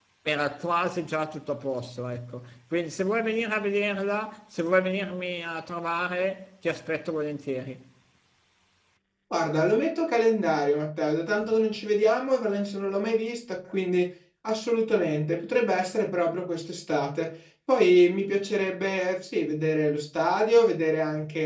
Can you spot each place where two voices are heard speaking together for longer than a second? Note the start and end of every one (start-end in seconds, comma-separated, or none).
none